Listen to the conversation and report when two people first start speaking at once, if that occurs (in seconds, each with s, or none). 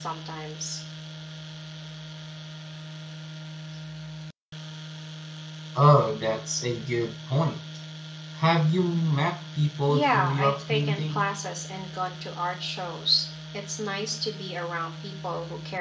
9.9 s